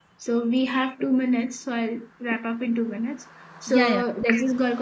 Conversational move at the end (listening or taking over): listening